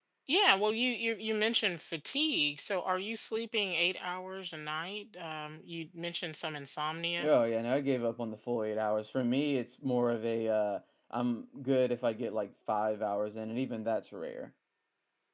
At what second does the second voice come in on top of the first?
none

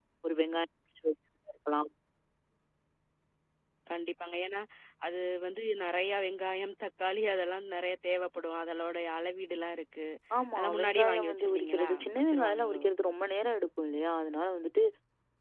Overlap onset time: 10.6 s

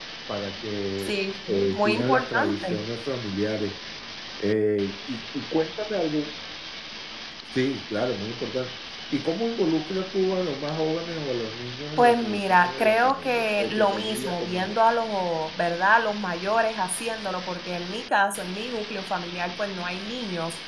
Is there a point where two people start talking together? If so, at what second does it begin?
1.0 s

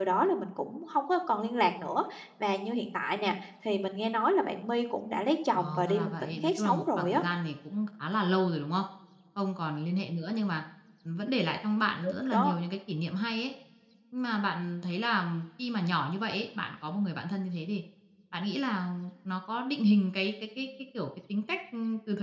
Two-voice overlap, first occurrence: 5.5 s

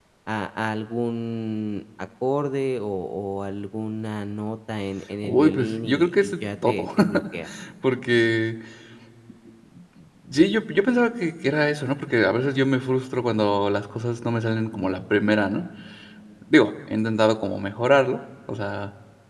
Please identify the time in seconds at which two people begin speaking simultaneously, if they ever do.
5.2 s

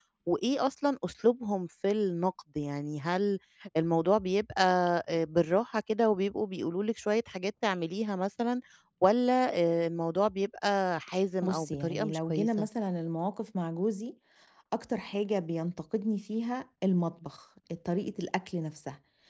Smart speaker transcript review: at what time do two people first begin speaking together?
11.4 s

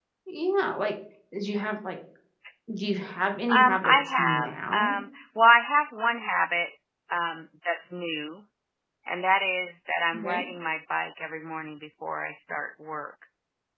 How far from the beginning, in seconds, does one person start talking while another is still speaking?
3.5 s

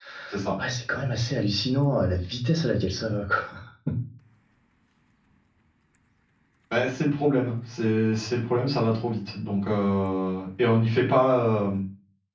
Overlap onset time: none

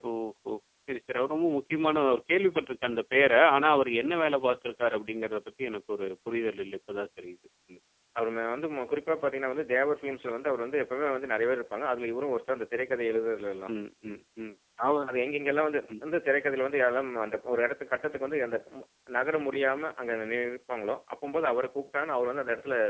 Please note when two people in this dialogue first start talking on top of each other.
none

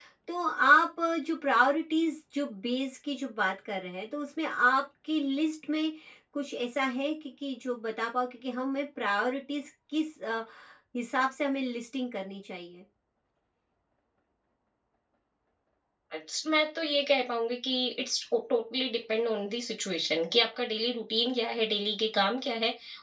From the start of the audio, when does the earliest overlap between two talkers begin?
none

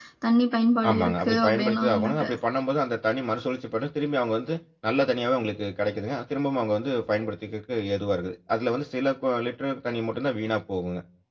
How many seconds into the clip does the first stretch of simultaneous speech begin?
0.9 s

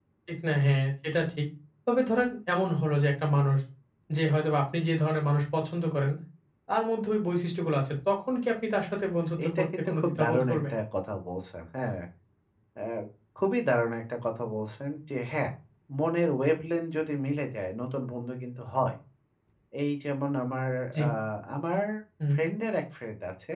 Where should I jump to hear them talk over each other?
9.4 s

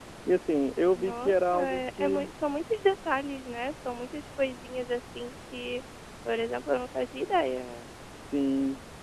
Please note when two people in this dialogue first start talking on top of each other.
0.9 s

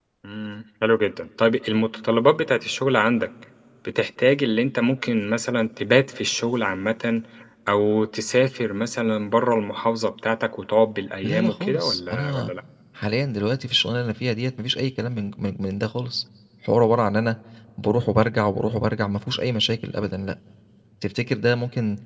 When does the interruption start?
11.2 s

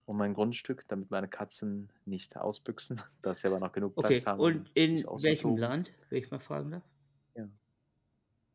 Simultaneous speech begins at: 4.0 s

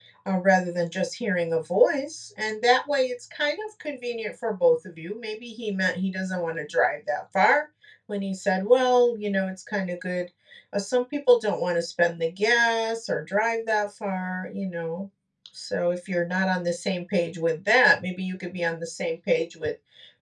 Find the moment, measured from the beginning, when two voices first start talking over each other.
none

